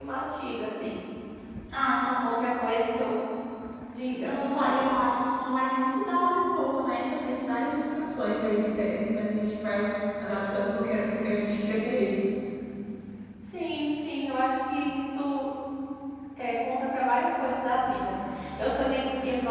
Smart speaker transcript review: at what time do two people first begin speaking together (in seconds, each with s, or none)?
none